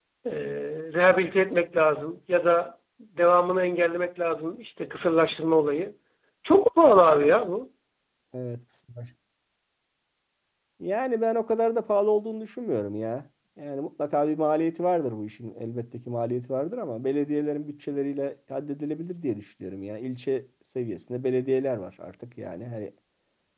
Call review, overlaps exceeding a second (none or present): none